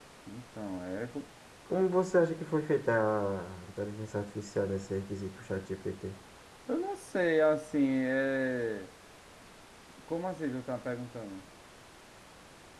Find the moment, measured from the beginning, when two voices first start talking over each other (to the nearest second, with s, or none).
none